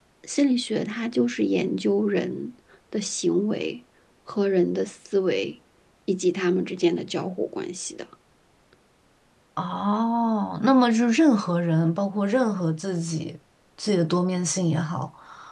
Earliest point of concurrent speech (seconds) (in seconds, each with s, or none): none